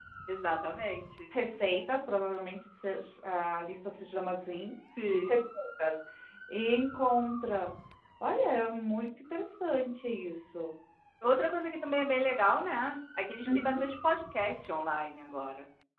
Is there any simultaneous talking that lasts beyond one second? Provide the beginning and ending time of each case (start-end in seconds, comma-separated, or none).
none